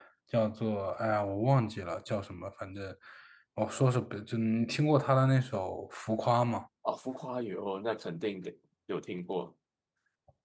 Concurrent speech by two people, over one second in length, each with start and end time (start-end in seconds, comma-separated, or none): none